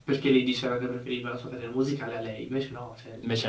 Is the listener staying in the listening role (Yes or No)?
Yes